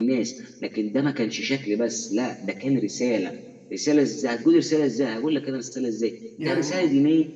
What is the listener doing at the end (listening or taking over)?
listening